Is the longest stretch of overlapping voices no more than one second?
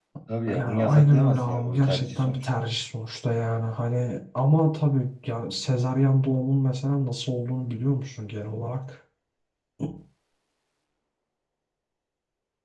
No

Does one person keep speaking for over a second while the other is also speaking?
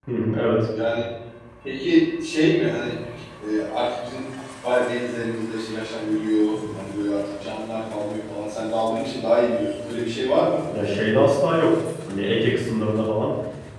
No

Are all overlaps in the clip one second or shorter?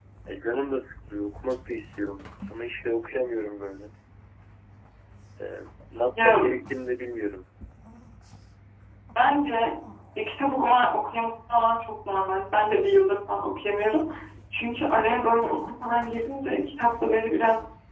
Yes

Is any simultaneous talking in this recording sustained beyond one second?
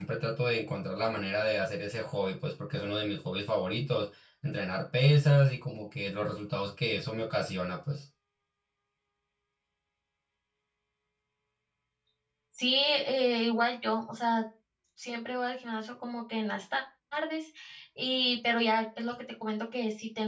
No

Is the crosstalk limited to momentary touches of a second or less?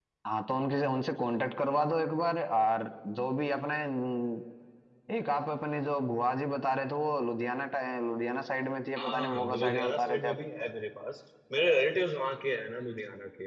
No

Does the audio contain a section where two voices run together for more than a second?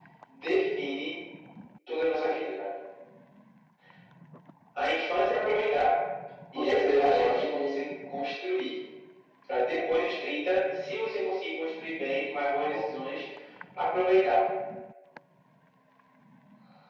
Yes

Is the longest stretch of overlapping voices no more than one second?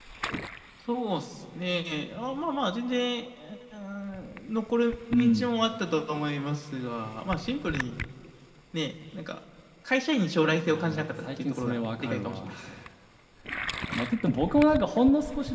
No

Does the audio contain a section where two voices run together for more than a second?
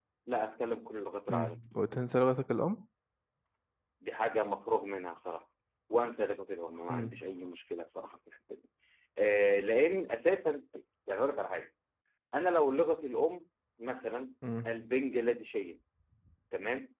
No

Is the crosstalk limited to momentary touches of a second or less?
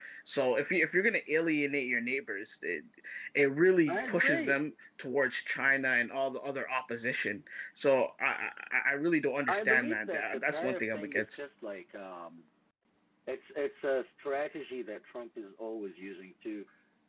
No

